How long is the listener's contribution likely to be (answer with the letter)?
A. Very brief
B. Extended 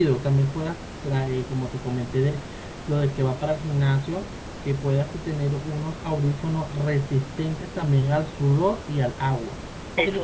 A